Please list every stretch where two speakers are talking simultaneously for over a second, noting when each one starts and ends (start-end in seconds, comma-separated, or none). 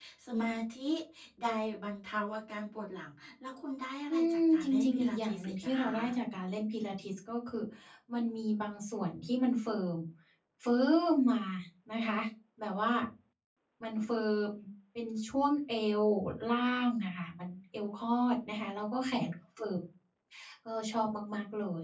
4.1-6.1